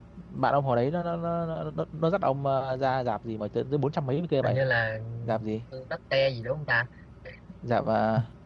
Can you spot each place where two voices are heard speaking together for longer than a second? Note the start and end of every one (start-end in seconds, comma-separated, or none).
none